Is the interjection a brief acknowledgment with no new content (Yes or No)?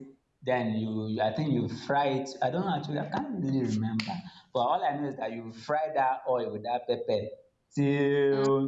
Yes